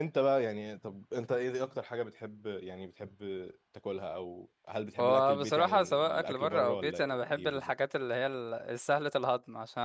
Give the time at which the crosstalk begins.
5.0 s

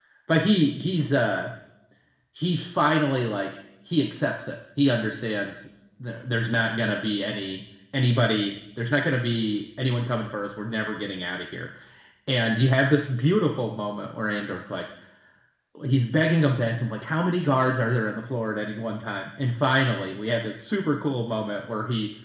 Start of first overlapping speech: none

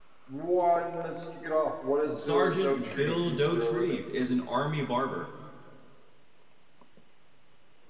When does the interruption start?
2.1 s

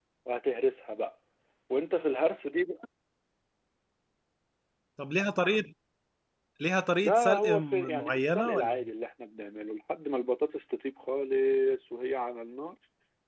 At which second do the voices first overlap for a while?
7.0 s

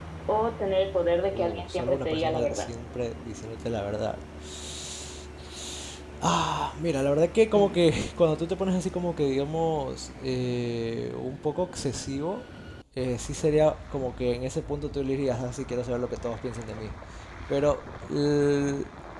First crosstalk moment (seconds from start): 1.3 s

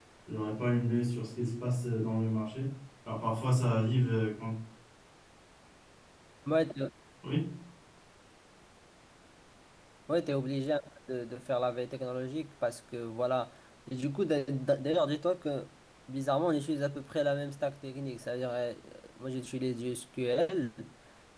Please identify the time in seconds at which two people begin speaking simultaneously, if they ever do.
none

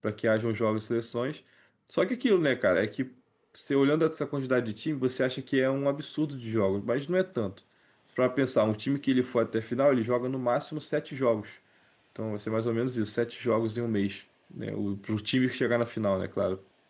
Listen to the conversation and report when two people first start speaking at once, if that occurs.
none

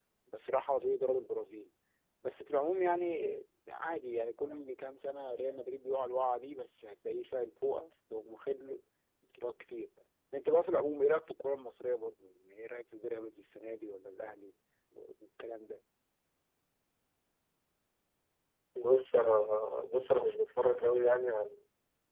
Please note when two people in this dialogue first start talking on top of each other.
none

